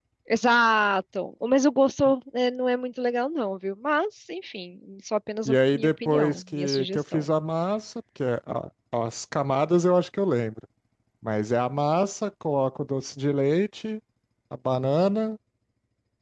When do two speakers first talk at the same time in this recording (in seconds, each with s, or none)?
5.5 s